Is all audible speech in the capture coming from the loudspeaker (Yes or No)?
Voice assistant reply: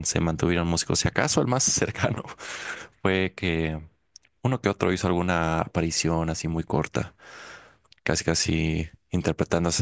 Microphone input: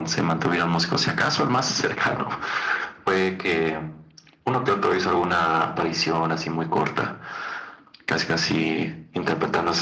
Yes